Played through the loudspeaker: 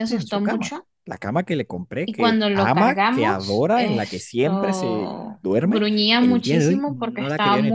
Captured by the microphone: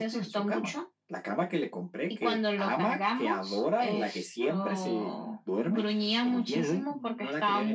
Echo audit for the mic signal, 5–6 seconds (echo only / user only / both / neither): echo only